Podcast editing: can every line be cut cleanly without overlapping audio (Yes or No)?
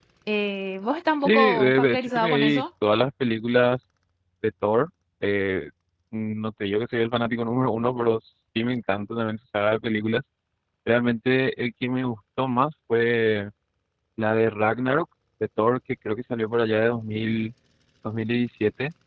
No